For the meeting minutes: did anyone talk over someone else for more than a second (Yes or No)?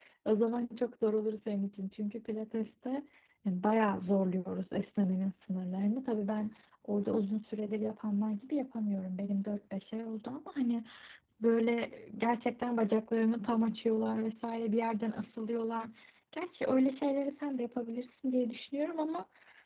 No